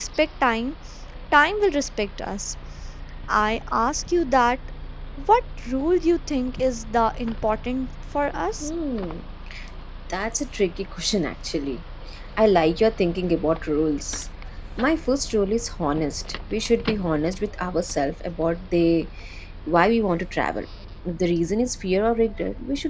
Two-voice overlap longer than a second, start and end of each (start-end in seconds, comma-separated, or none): none